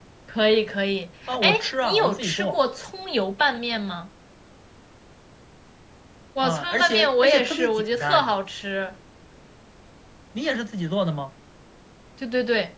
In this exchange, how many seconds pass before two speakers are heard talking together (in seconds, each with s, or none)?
1.3 s